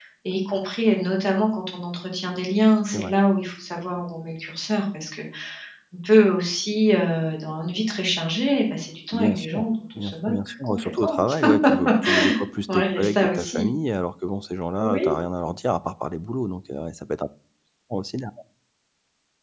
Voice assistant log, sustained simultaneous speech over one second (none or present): present